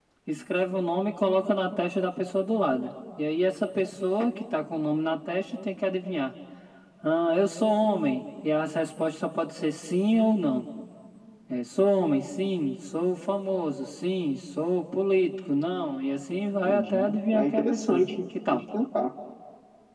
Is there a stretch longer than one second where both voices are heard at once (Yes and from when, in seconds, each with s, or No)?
Yes, from 16.6 s